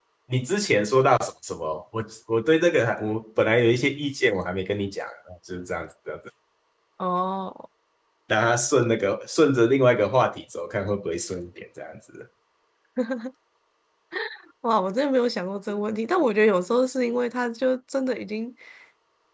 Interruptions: none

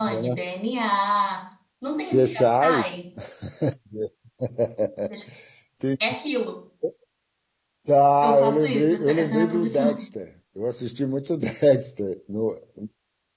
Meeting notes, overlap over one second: present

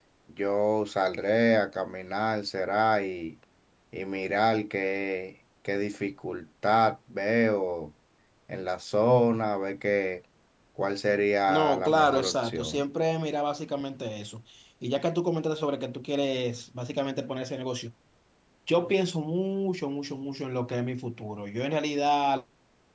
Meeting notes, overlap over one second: present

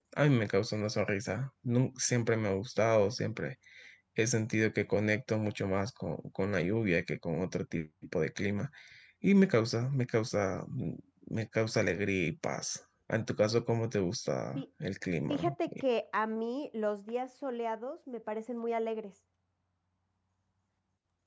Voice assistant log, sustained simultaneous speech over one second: none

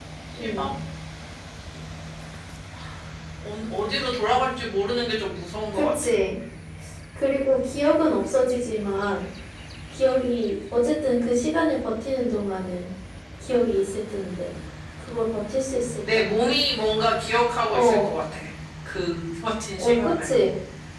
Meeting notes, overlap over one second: none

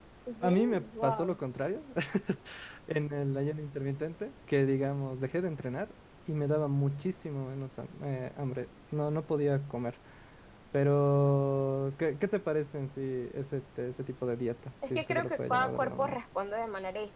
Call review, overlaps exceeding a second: present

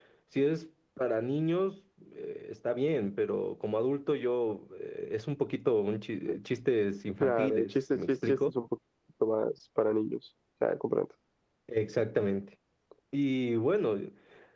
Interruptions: present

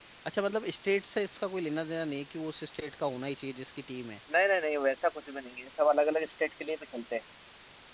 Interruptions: none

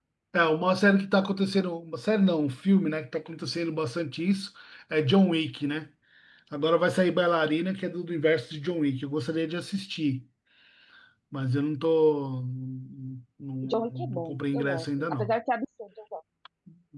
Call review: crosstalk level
present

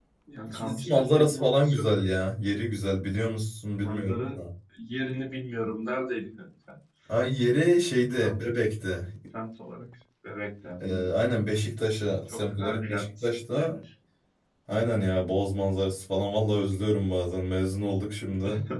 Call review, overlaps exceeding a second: present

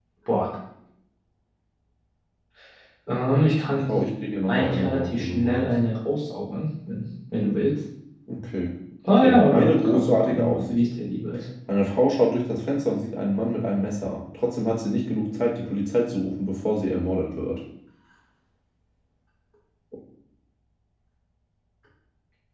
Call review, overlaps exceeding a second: present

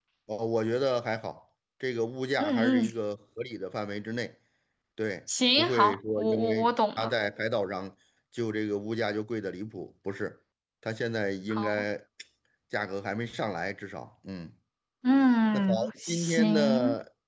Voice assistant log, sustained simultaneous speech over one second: present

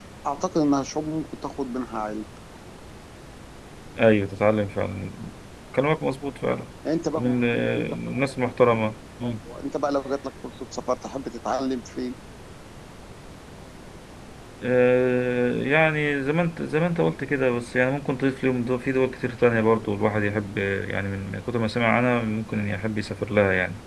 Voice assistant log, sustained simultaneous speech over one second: present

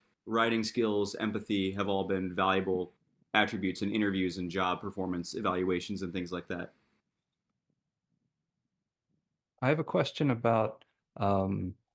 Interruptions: none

